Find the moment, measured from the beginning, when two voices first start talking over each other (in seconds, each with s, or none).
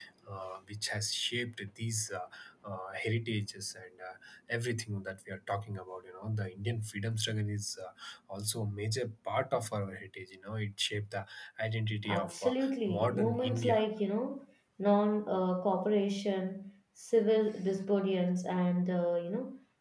12.0 s